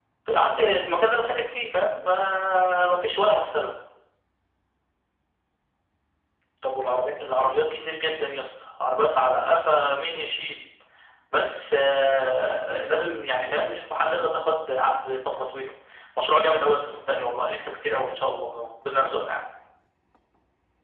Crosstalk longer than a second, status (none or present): none